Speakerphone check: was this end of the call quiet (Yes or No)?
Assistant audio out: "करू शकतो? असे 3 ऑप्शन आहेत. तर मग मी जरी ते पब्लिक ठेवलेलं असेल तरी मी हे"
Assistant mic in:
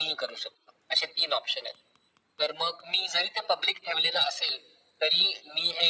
Yes